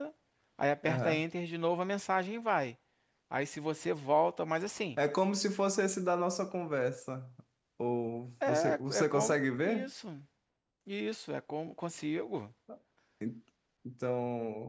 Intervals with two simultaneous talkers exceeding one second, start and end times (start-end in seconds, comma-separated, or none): 8.5-9.9